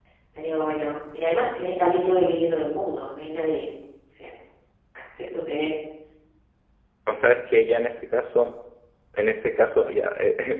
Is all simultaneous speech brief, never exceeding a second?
Yes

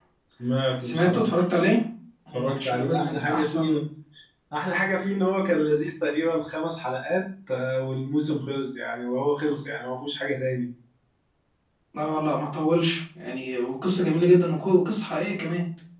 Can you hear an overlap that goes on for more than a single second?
Yes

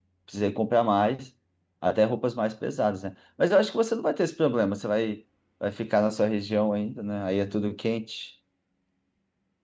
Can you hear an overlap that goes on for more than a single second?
No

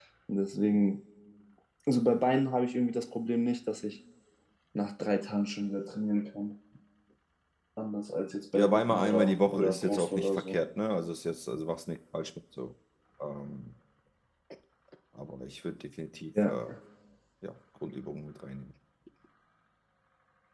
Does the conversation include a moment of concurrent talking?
Yes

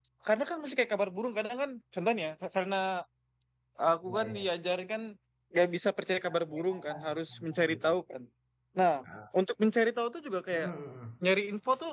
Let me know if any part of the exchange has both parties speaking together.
Yes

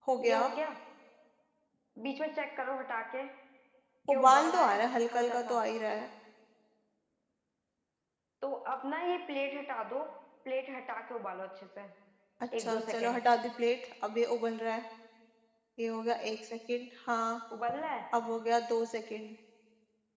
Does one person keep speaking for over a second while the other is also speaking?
Yes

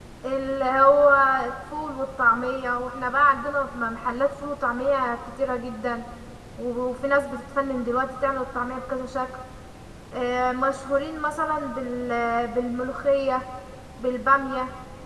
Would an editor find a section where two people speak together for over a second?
No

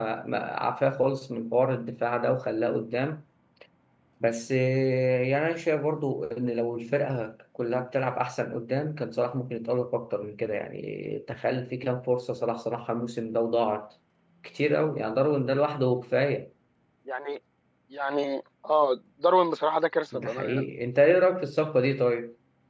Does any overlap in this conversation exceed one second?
No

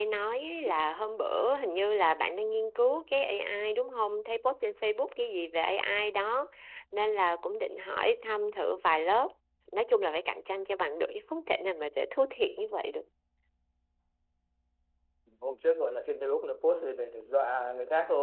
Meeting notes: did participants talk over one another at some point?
No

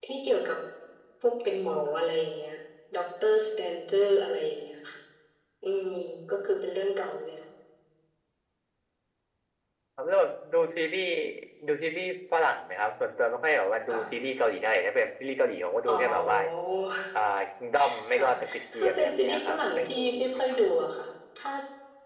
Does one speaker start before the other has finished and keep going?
Yes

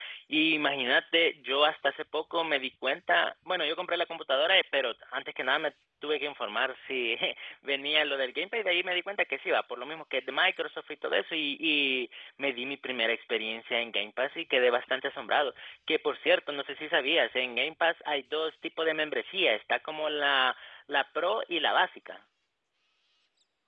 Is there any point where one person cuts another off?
No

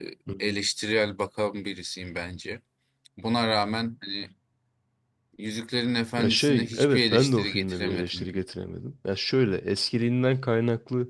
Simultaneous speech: Yes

